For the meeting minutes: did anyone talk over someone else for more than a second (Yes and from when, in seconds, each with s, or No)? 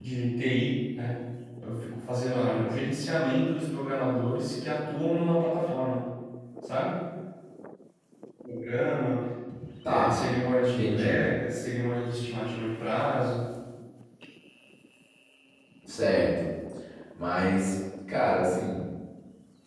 No